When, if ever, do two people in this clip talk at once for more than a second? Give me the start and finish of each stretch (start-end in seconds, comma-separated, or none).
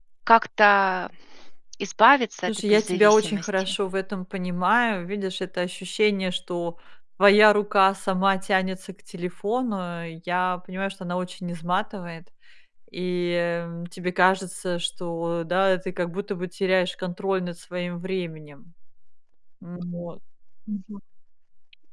2.5-3.7